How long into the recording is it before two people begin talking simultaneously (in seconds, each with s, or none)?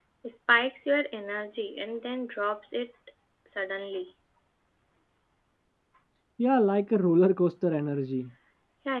none